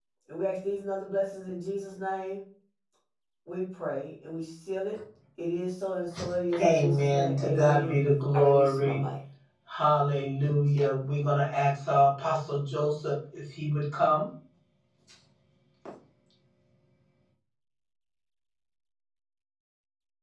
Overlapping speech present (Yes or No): Yes